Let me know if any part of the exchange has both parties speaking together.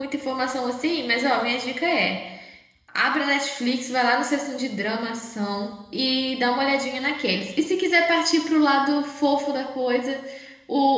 No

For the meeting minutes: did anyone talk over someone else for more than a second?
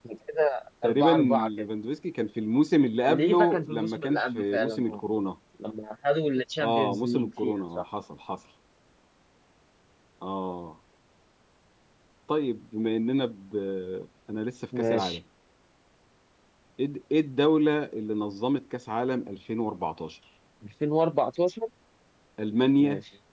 Yes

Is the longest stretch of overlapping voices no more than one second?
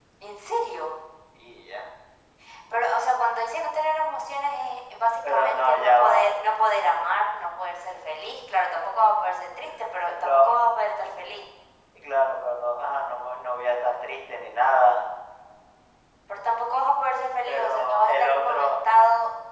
No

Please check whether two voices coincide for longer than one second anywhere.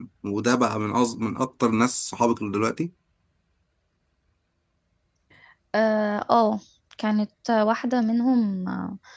No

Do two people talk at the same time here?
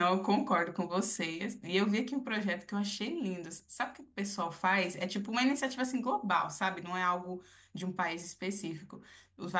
No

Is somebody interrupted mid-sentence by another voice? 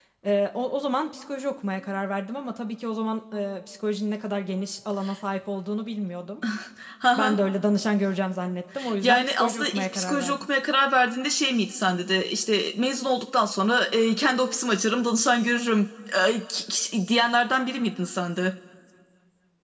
Yes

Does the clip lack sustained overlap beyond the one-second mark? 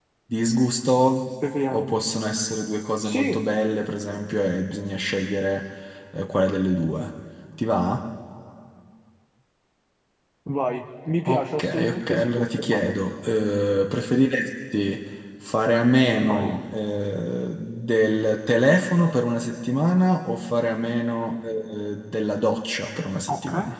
No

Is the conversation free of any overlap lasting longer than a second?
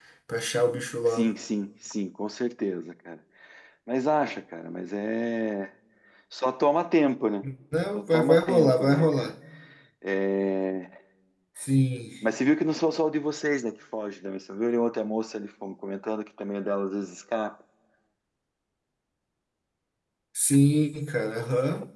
No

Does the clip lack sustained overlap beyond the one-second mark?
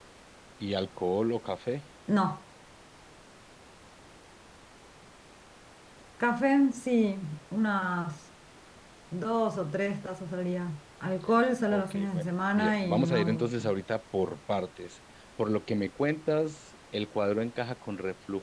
No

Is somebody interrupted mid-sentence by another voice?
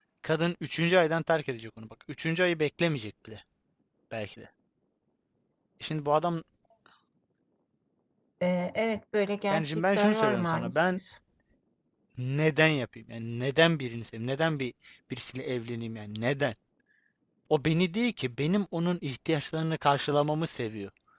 Yes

